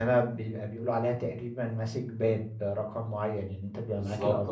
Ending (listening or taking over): listening